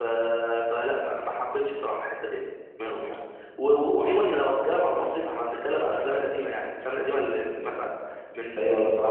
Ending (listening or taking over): taking over